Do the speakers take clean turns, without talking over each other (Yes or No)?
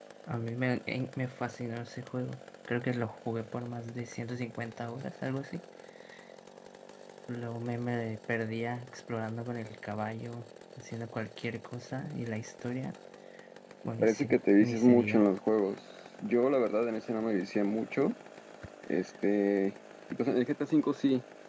No